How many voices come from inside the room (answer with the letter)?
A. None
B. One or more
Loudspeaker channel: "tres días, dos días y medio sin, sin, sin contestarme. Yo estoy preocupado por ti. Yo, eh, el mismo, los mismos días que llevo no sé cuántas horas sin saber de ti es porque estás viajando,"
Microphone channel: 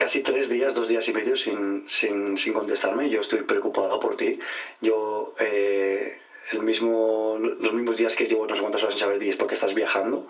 A